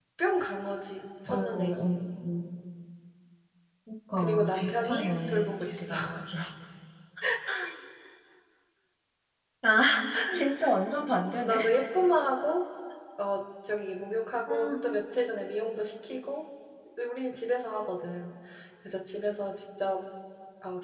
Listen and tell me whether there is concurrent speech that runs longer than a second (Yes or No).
Yes